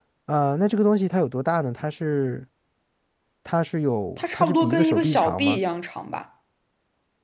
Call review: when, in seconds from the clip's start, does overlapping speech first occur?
4 s

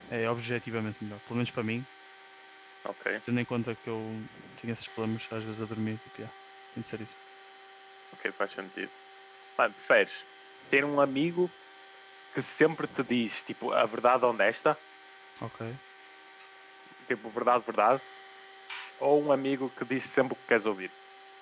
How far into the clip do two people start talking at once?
none

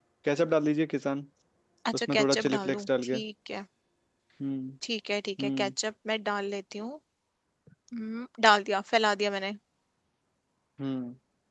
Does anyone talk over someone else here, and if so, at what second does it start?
2 s

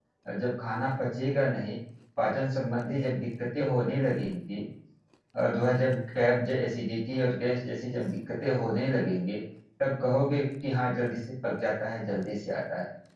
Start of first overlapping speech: none

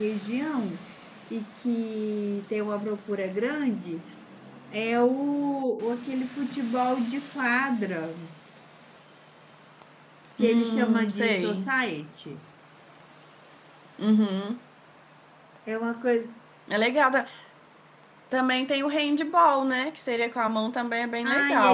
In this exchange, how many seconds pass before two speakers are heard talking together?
10 s

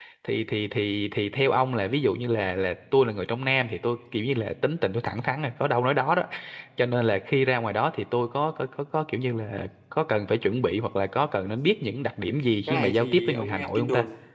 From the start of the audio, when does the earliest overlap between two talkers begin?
13 s

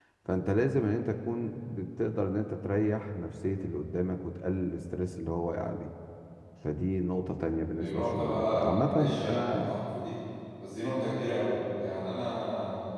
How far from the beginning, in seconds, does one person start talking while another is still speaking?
8 s

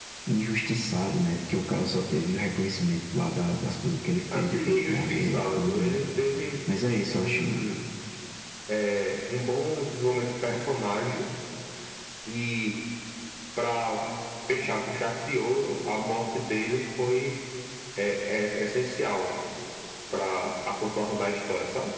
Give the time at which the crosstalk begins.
4 s

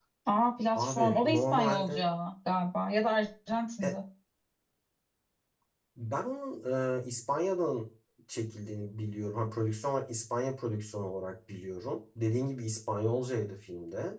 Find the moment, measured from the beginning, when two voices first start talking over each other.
1 s

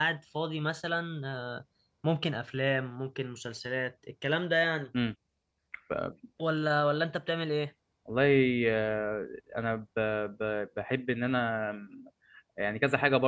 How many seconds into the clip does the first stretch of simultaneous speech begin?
none

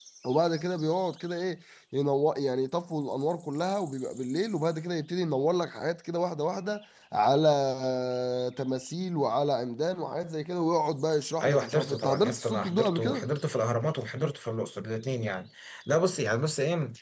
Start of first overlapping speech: 11 s

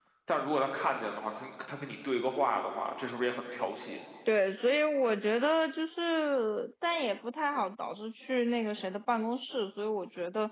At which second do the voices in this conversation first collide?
none

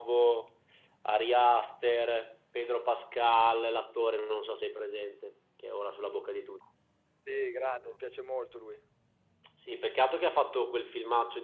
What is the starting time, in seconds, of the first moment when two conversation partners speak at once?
none

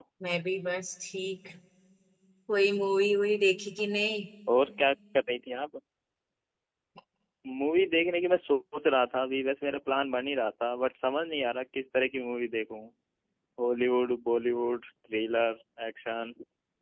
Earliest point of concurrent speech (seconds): none

